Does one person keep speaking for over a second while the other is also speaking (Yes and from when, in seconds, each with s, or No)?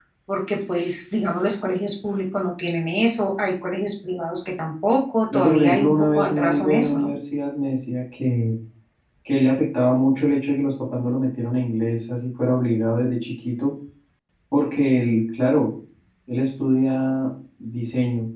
Yes, from 5.3 s